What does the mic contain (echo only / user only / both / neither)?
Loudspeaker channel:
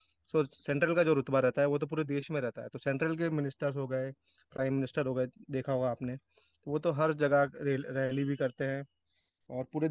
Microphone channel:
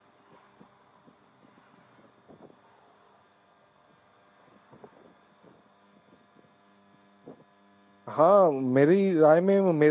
user only